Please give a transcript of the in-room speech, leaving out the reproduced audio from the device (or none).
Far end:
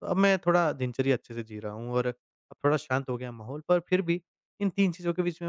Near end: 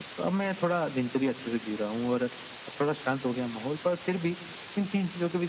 none